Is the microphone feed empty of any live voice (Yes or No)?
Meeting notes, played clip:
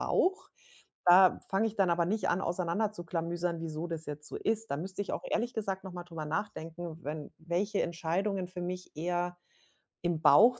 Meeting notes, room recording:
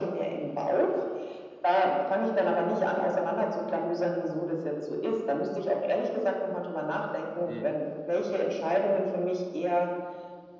No